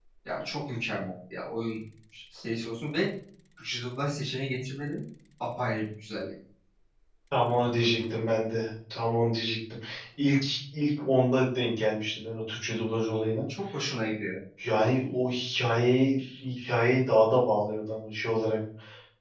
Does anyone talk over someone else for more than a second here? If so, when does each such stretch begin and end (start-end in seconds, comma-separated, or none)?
none